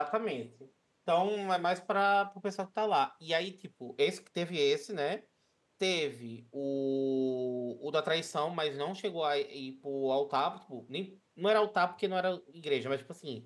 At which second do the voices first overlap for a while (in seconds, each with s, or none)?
none